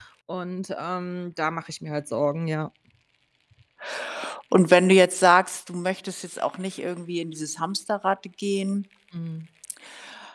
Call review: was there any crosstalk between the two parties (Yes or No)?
No